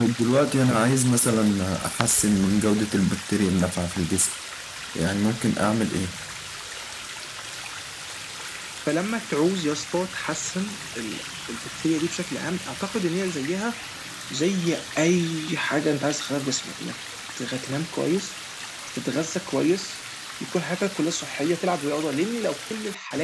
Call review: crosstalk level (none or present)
none